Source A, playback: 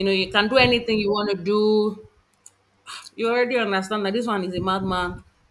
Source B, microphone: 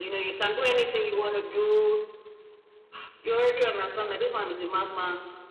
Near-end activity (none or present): none